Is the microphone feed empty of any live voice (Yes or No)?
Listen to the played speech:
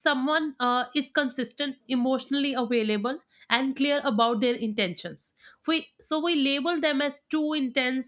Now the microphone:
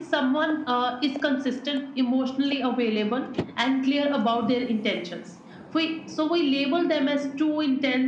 Yes